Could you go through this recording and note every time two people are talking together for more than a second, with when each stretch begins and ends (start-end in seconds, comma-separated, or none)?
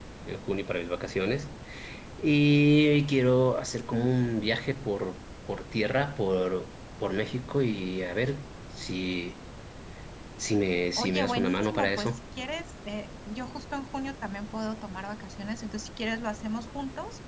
11.0-12.2